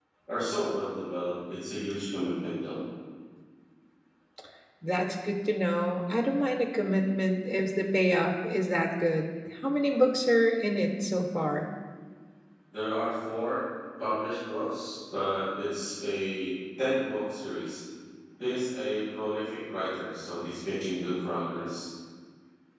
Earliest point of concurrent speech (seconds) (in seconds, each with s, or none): none